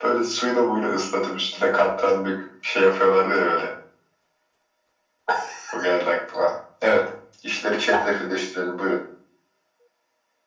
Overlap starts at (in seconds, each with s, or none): none